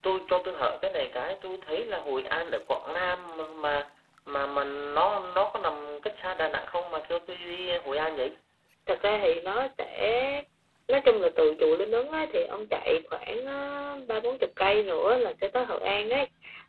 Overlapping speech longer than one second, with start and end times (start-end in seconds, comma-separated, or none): none